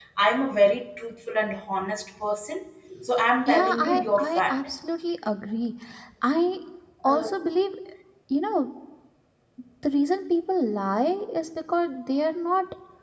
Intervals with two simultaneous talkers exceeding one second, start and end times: 3.5-4.7

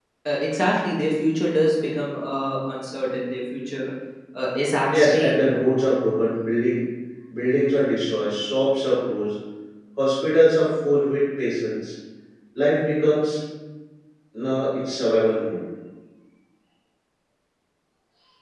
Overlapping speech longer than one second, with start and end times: none

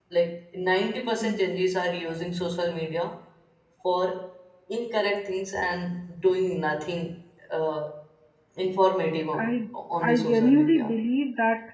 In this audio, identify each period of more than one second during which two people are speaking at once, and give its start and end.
9.4-10.9

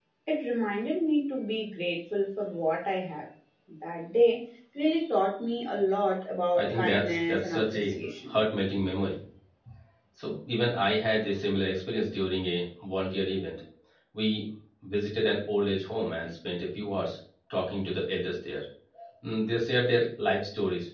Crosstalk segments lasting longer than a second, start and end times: 6.5-7.9

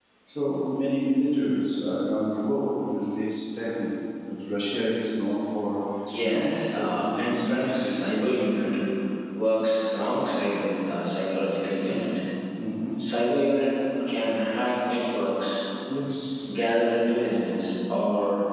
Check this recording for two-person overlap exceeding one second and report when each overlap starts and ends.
6.2-8.3

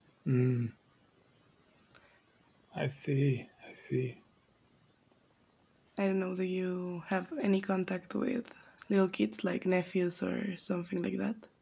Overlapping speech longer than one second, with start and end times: none

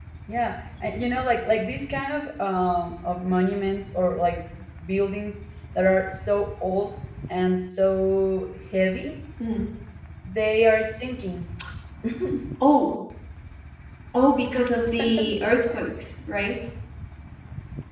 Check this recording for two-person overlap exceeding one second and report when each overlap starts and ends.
none

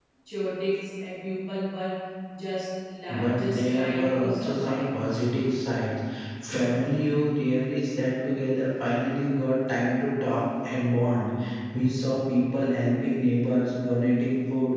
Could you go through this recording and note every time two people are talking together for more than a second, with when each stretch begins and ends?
3.1-4.8

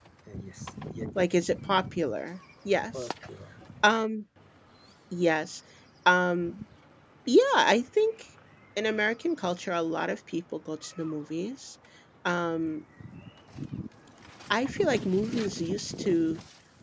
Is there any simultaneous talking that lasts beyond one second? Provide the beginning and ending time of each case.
none

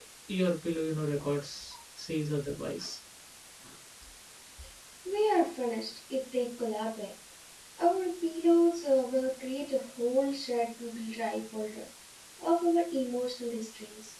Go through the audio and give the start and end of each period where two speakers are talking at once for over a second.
none

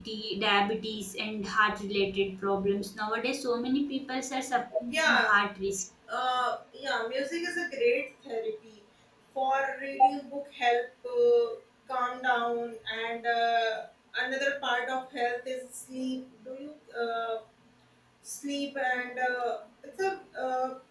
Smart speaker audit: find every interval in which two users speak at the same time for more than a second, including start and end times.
none

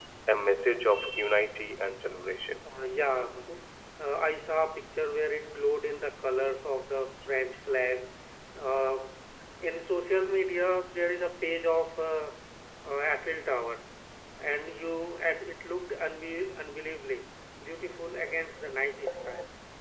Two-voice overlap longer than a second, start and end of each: none

